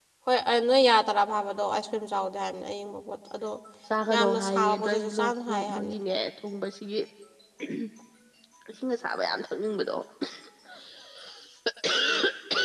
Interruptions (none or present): present